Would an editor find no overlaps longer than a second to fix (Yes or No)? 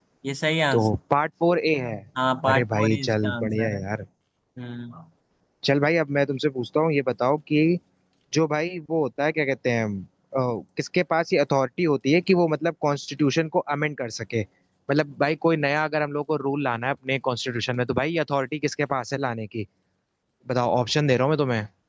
No